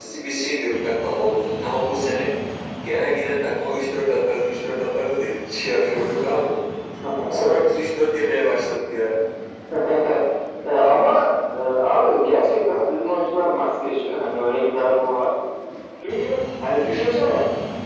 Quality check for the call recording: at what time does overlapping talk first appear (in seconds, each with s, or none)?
none